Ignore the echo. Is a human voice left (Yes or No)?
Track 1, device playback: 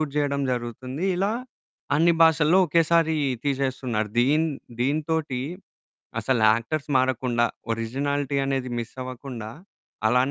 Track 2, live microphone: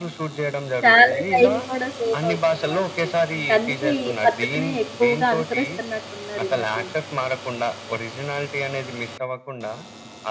Yes